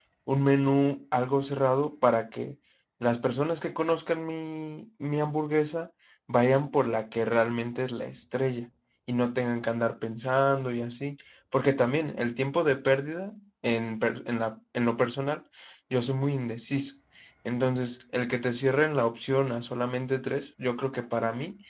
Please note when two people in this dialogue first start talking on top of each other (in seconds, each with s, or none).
none